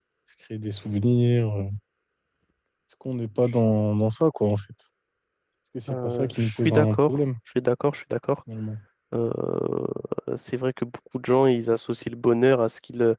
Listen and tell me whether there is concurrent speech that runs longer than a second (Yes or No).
Yes